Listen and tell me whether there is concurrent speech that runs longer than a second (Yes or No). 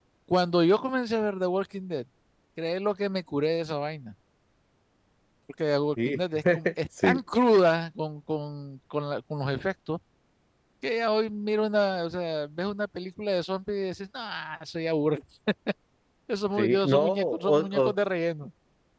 Yes